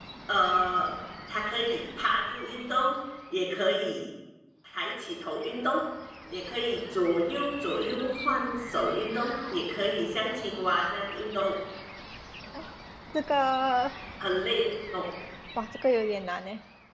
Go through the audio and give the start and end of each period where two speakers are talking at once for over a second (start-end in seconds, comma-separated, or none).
none